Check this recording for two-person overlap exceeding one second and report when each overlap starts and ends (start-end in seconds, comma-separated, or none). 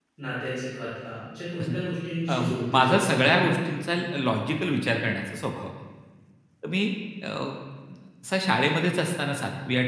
2.3-3.5